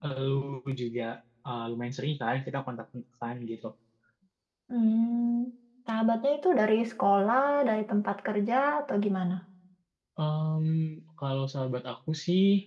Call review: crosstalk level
none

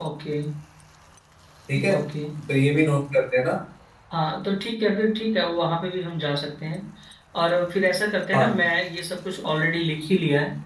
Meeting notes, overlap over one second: none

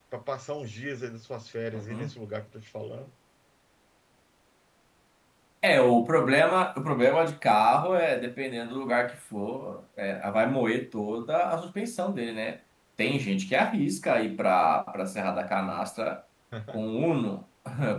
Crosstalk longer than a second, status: none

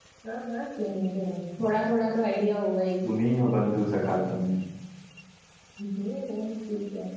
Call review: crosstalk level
none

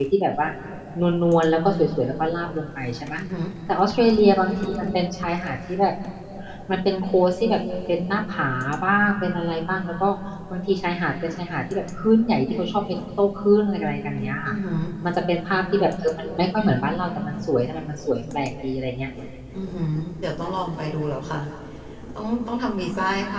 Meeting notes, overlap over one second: none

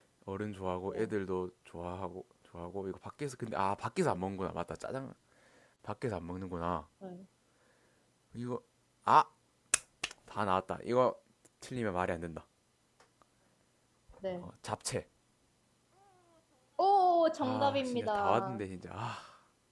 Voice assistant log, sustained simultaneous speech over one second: present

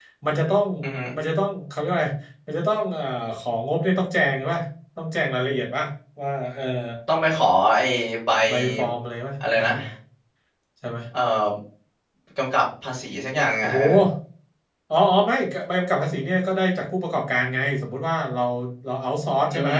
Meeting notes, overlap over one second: none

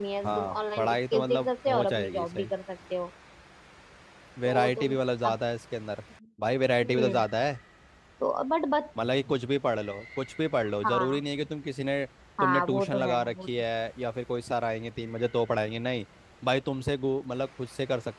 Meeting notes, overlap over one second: present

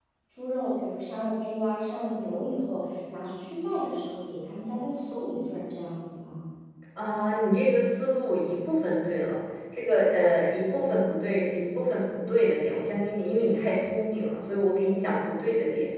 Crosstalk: none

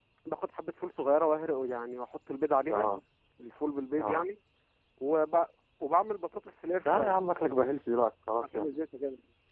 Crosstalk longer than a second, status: none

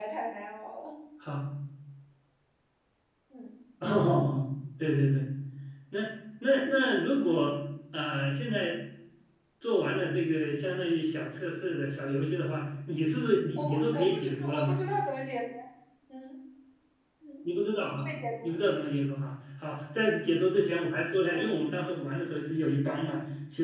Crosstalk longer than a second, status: present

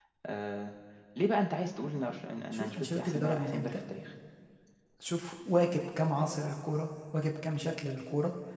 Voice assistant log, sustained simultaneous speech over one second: present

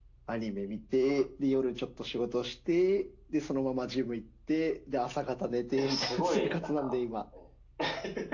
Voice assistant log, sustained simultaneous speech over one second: present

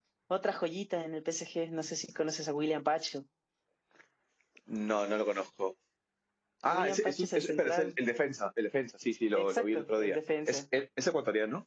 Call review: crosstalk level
present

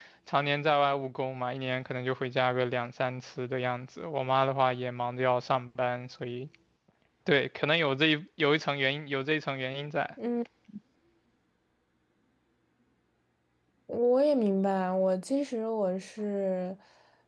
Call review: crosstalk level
none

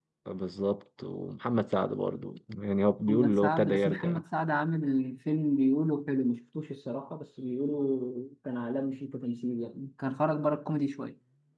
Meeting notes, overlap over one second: present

